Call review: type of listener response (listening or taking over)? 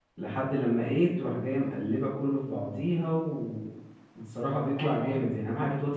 listening